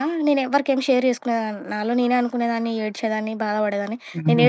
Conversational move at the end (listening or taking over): listening